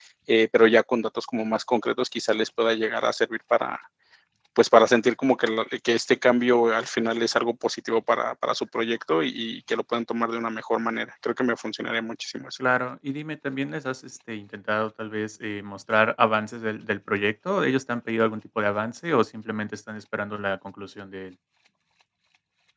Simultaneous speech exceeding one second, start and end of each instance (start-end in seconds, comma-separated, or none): none